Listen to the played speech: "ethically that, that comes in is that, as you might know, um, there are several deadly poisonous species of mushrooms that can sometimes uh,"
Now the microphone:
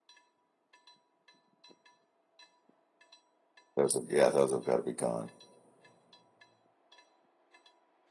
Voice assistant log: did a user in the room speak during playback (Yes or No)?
Yes